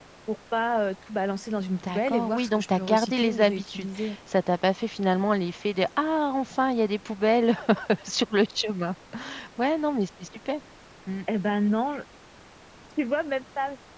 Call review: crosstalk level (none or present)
present